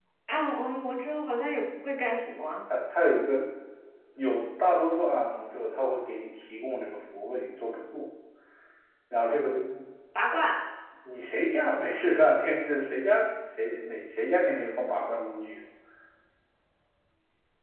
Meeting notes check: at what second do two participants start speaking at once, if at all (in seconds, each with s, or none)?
none